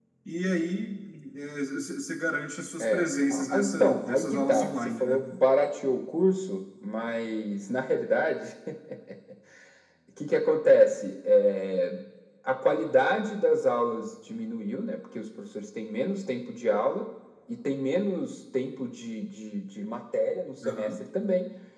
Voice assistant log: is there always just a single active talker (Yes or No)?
No